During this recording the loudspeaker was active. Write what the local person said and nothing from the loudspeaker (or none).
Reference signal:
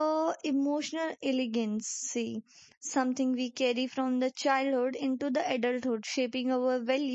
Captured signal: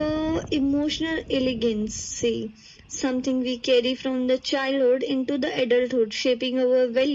none